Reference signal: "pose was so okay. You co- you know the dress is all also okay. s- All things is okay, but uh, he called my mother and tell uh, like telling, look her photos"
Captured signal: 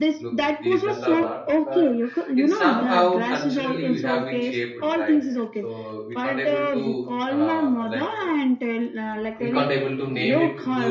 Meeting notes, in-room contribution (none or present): present